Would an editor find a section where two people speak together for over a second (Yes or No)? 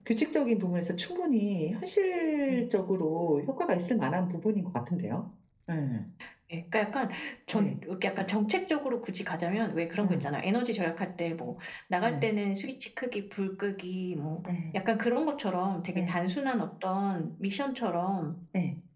No